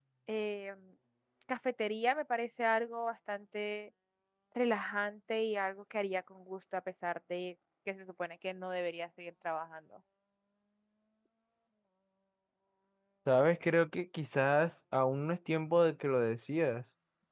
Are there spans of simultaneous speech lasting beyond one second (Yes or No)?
No